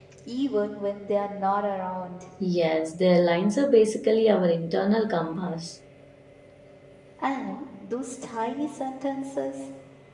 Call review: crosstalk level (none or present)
none